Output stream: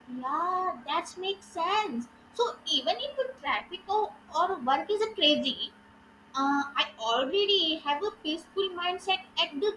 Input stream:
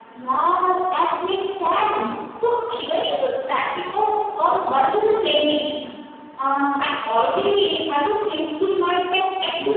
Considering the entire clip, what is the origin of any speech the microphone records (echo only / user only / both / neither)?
echo only